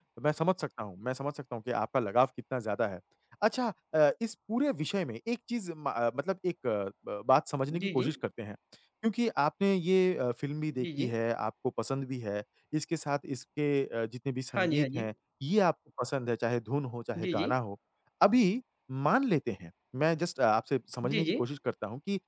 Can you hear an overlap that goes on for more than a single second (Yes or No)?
No